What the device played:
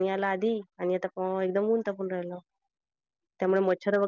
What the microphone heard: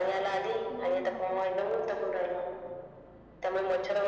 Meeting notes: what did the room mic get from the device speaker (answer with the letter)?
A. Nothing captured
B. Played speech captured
B